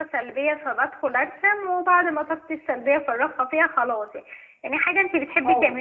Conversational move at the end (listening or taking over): listening